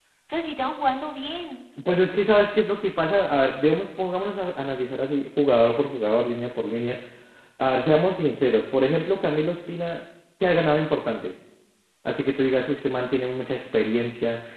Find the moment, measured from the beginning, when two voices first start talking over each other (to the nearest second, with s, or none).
none